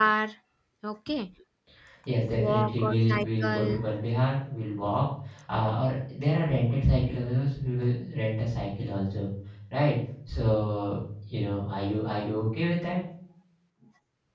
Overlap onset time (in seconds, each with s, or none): 2.3 s